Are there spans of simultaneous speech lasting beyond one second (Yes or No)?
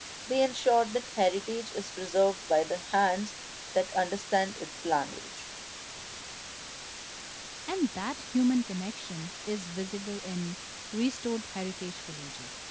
No